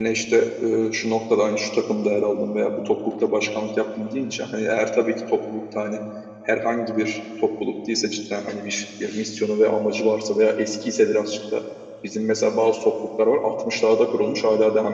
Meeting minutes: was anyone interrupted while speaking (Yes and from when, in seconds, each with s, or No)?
No